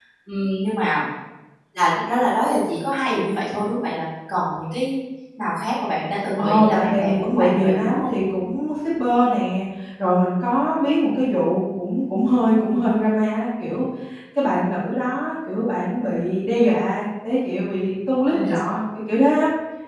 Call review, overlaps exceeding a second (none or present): present